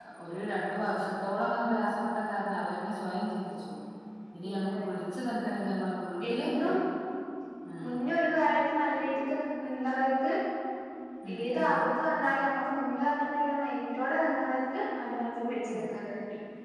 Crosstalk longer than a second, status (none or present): none